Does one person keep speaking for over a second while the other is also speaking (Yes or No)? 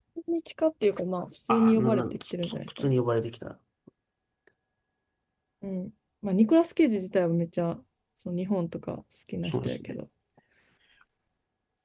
Yes